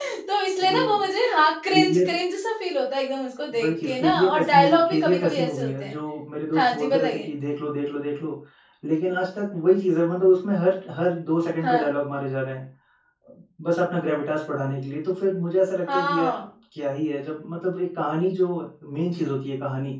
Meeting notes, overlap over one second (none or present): present